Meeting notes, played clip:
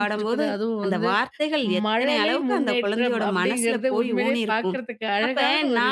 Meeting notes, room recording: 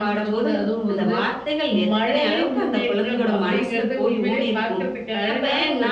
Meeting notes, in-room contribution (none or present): none